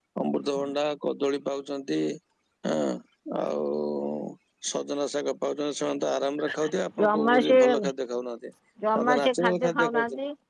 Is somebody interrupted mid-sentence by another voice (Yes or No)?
Yes